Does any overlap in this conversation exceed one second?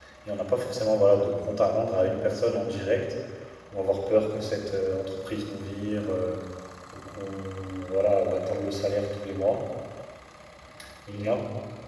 No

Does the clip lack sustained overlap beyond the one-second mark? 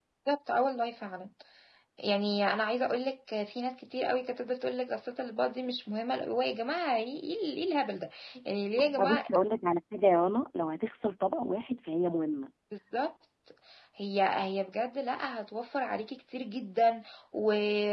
Yes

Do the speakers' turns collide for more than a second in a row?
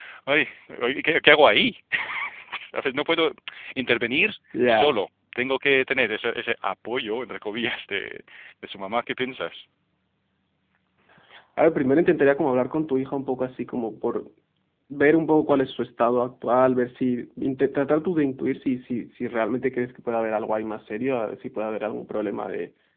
No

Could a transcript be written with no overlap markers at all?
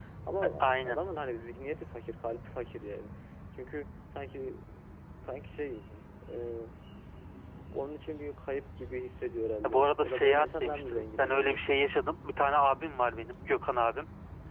No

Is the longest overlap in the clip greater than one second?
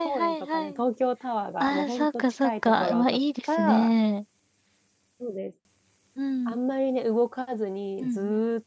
Yes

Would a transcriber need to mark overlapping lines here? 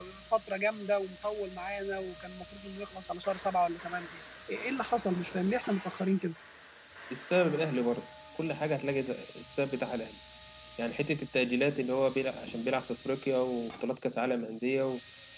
No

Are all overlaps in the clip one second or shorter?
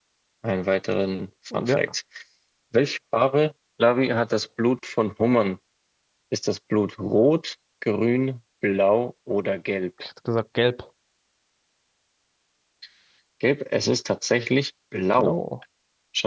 Yes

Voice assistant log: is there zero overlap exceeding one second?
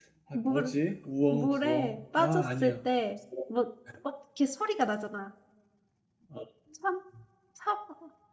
No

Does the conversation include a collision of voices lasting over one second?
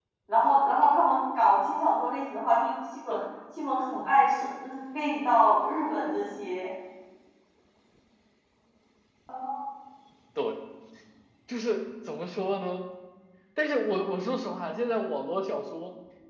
No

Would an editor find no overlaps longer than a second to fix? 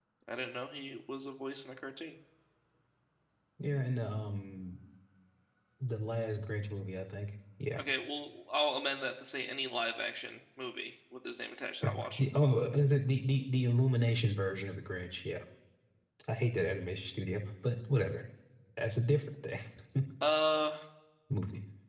Yes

